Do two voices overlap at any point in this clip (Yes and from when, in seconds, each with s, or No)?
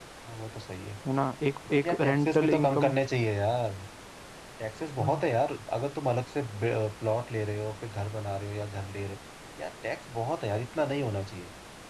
Yes, from 1.7 s